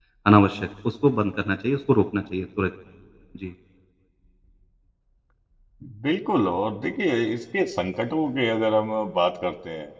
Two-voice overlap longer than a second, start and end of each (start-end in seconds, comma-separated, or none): none